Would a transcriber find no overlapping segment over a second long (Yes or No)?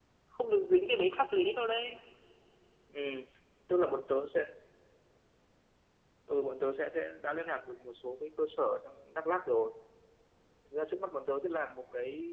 Yes